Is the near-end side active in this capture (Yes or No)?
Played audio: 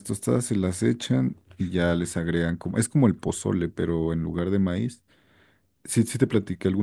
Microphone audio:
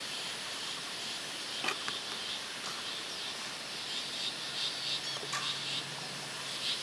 No